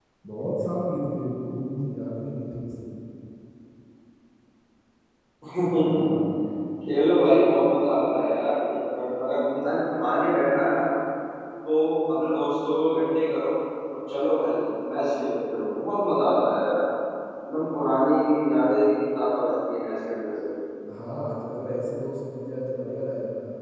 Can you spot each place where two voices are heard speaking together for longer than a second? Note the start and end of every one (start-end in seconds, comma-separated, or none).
none